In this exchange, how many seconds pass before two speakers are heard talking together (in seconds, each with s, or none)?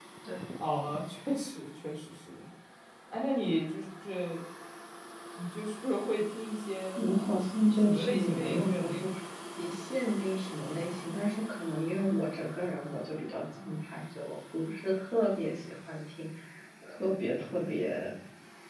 7.8 s